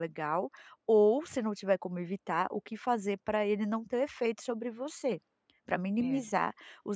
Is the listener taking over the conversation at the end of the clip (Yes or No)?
No